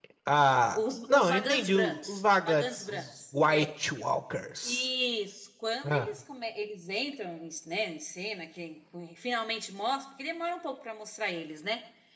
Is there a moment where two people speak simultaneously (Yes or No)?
Yes